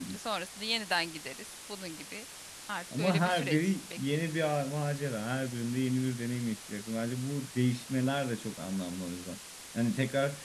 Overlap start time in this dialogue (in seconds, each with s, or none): 3.0 s